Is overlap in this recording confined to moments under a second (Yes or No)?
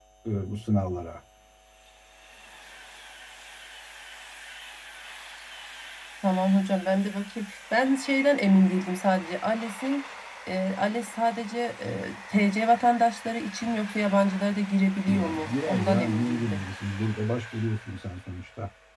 No